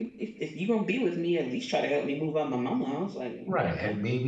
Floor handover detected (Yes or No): Yes